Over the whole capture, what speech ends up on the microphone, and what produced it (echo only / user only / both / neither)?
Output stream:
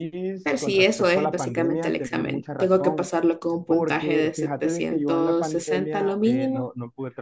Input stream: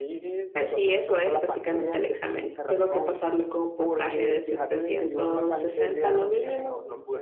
both